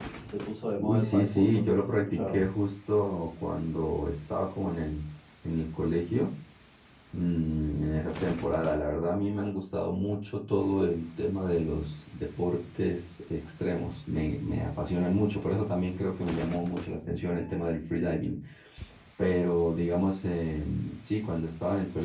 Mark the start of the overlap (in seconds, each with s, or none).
0.8 s